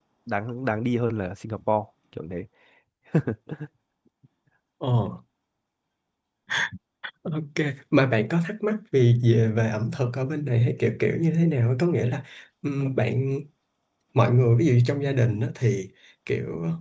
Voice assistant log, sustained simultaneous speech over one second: none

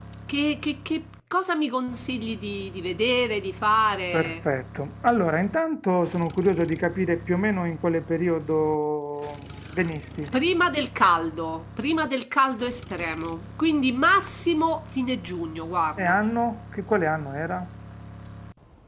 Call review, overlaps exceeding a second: none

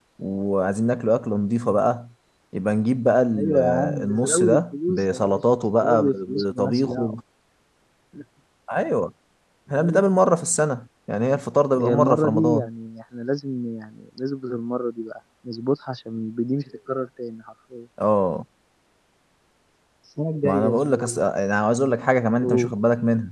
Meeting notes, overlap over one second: present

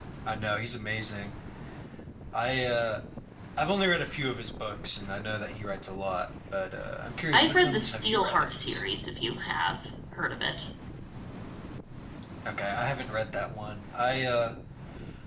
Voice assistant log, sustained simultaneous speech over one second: present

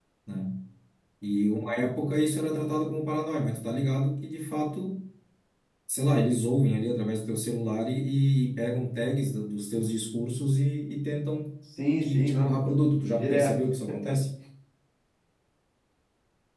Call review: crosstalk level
present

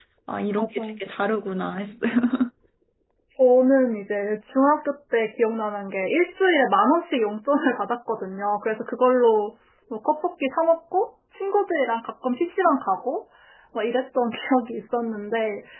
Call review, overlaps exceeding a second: none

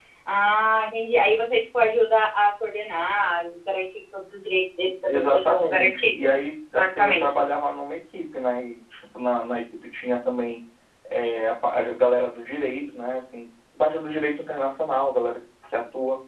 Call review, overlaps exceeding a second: present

